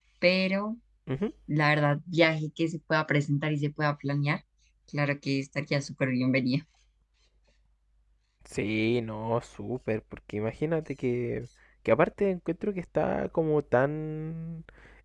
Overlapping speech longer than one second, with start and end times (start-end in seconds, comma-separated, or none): none